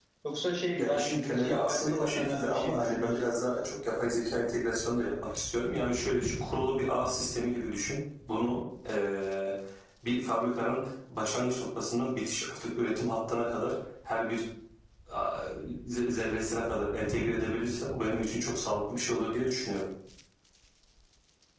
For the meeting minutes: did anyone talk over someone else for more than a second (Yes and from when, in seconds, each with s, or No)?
Yes, from 0.8 s